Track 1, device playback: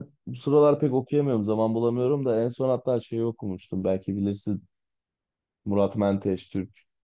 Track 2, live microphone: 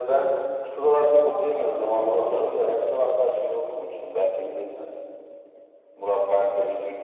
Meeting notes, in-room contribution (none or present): none